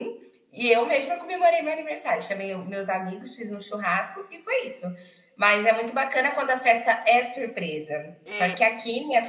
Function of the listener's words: listening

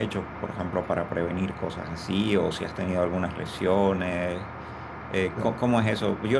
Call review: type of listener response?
listening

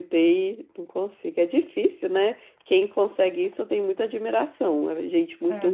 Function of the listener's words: taking over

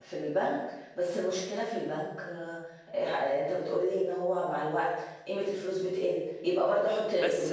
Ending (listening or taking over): taking over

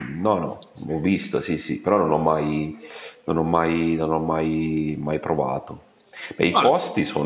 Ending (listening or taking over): listening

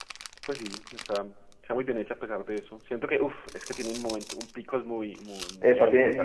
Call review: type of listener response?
taking over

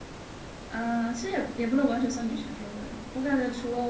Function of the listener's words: listening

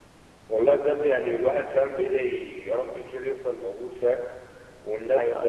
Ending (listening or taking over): listening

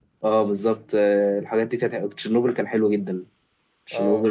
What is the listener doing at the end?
listening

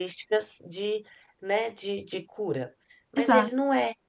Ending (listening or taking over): listening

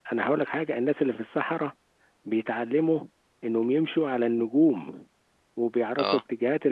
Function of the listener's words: listening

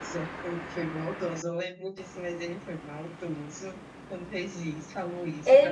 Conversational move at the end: taking over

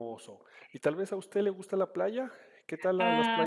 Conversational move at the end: taking over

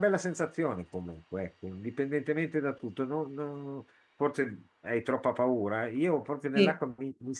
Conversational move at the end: listening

